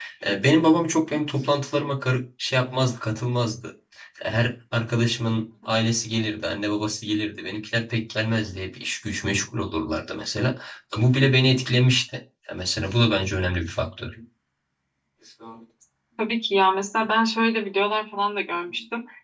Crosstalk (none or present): none